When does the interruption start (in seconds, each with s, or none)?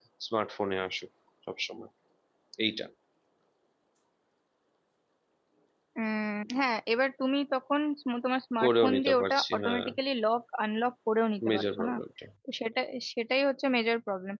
8.6 s